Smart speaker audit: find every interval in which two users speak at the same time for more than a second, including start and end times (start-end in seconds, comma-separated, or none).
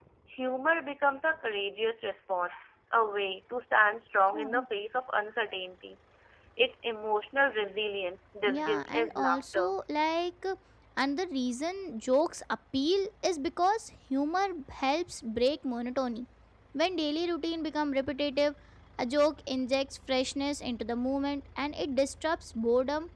8.5-9.8